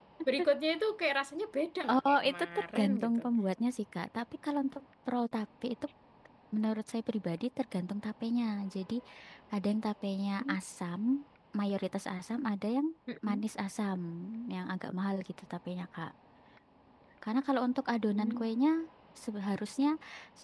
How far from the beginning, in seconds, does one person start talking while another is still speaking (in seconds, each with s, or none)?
1.9 s